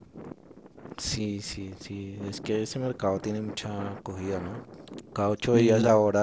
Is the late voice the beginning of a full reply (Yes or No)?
No